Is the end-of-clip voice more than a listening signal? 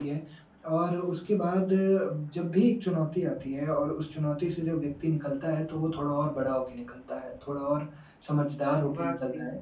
No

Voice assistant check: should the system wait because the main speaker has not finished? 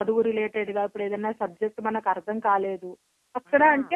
Yes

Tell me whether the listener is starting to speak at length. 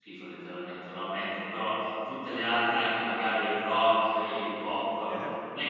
No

